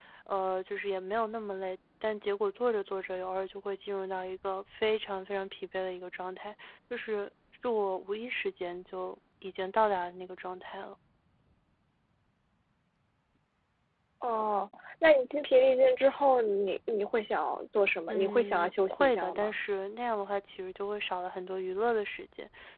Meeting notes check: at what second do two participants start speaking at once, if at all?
18.1 s

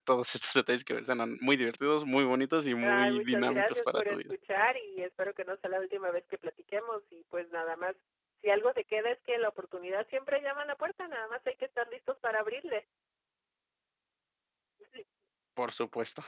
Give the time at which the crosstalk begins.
2.8 s

